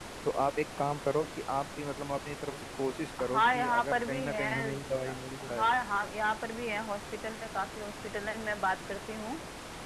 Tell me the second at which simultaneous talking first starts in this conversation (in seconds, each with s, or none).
3.2 s